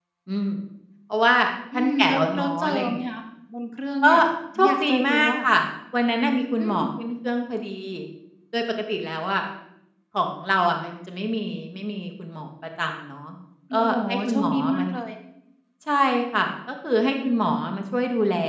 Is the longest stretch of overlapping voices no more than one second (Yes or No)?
No